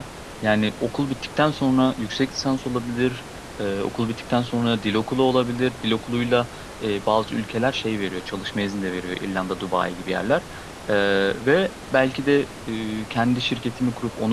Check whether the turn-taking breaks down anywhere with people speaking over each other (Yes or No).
No